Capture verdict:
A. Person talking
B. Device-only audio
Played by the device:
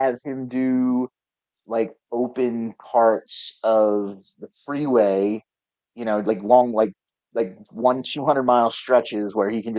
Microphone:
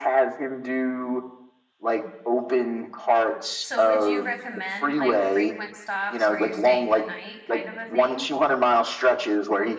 A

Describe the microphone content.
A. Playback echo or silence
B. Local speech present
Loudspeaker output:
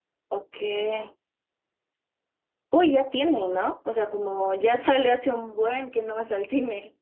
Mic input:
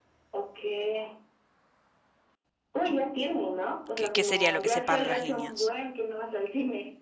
B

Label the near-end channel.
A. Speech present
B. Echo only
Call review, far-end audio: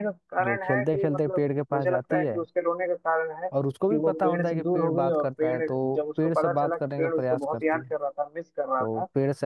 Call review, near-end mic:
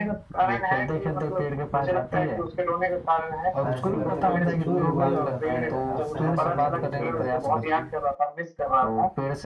A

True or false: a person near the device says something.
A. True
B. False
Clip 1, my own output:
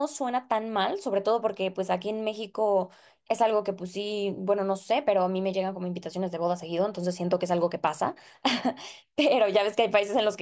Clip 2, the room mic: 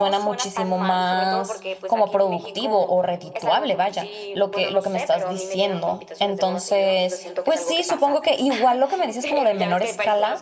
A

